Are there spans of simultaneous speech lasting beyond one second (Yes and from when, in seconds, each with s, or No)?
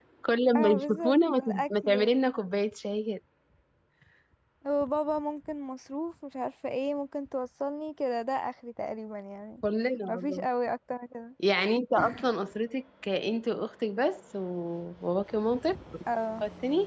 Yes, from 0.6 s